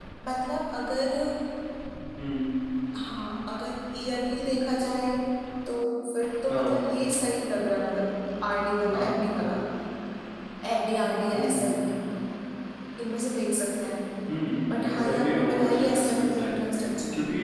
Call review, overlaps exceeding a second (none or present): present